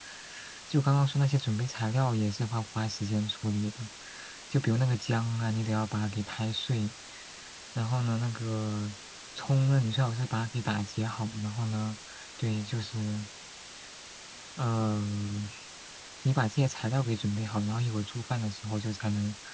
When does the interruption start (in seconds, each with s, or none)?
none